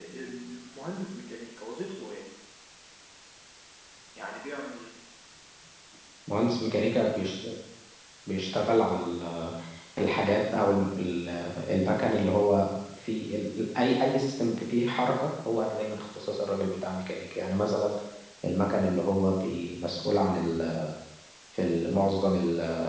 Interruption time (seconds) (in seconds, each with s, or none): none